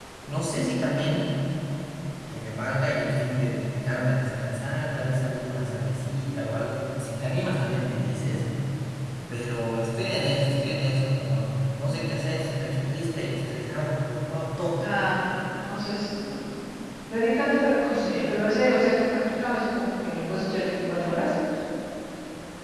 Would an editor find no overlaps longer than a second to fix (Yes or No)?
Yes